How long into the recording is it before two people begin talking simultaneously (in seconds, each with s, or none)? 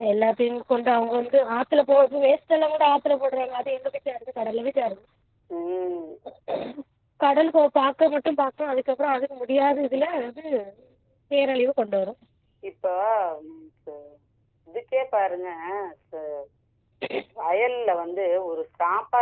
none